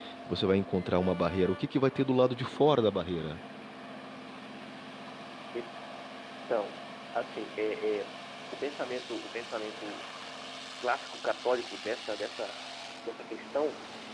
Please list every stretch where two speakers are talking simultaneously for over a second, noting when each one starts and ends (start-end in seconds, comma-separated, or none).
none